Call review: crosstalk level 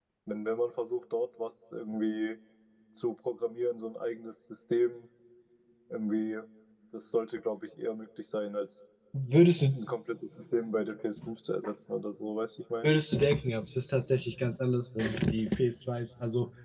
none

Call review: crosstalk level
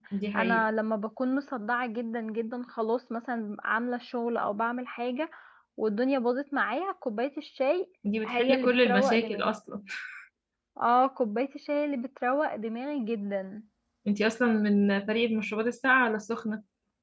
present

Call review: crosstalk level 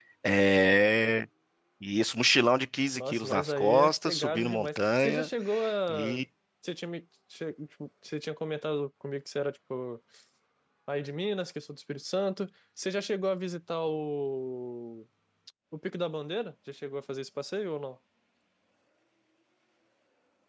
present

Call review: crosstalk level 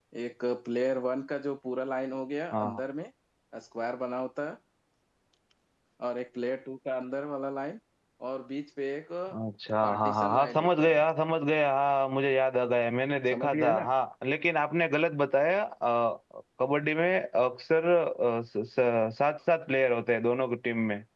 present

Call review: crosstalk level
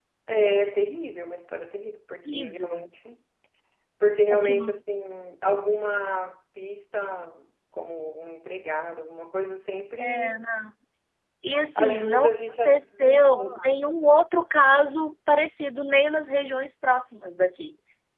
present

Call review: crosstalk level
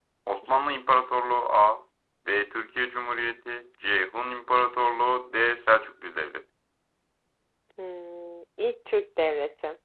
none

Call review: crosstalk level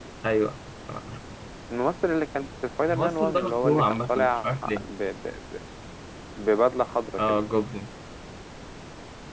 present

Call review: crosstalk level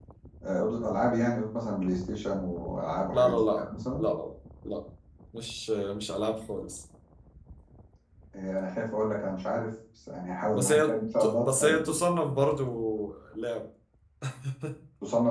present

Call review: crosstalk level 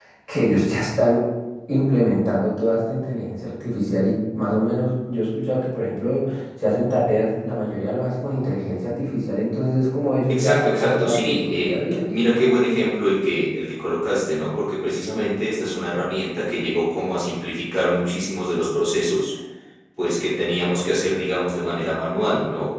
present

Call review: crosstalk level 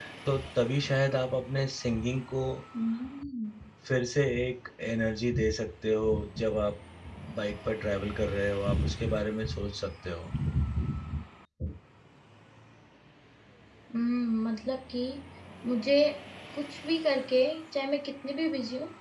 none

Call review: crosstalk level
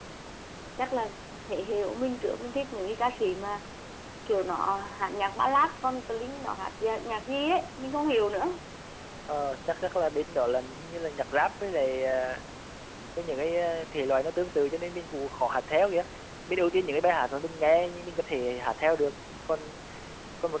none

